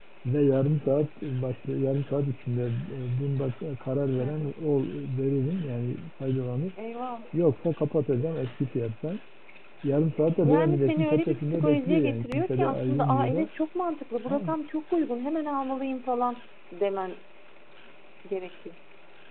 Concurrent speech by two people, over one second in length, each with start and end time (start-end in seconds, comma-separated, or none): 10.4-13.5